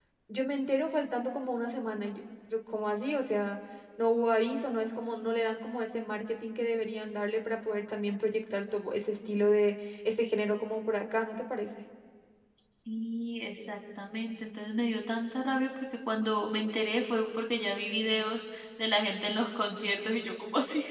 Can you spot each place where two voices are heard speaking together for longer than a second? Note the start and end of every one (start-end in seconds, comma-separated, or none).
none